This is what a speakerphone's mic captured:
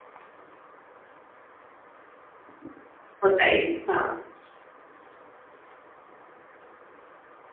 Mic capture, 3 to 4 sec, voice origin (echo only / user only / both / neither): user only